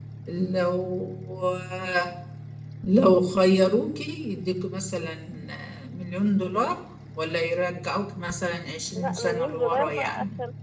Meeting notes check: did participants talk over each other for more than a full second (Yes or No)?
Yes